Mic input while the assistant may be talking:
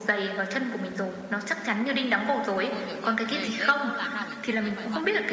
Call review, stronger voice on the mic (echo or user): echo